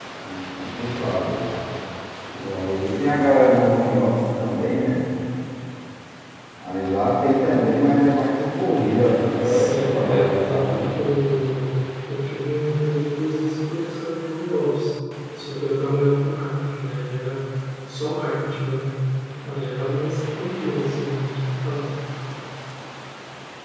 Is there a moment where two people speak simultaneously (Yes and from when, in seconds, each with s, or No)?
Yes, from 9.4 s